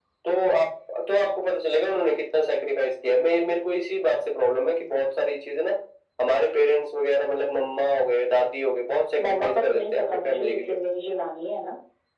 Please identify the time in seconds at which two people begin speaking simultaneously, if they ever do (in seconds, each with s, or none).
9.2 s